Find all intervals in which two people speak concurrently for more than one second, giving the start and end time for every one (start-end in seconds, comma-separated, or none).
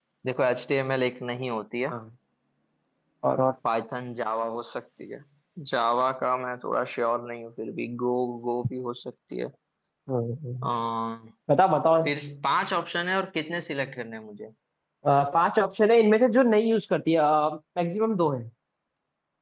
none